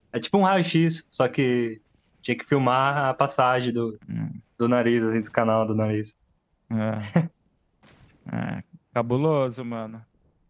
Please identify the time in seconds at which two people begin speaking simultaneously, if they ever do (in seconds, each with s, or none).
none